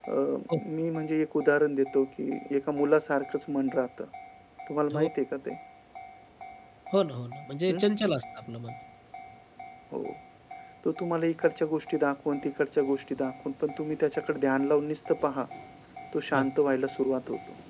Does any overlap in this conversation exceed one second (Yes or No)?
No